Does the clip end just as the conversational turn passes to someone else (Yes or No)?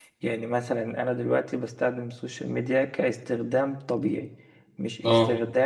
No